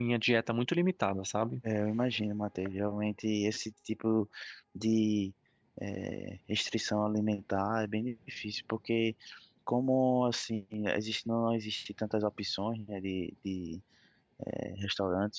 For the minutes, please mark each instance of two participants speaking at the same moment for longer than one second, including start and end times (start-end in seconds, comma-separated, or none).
none